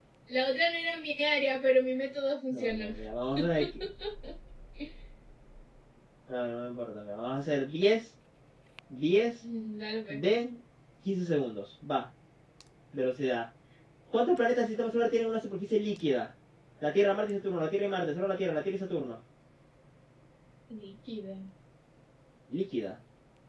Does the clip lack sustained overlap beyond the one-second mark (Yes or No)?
Yes